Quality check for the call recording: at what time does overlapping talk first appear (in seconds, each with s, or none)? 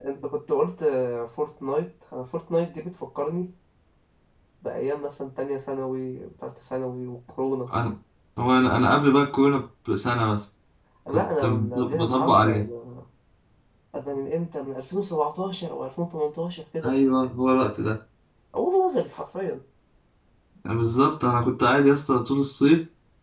11.1 s